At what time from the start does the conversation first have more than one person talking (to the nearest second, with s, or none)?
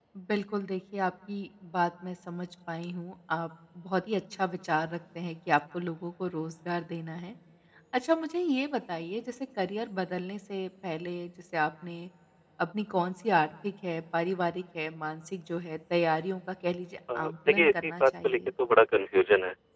17 s